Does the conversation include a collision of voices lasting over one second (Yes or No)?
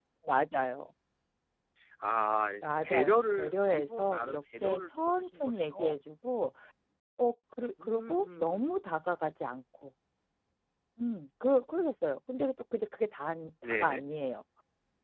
Yes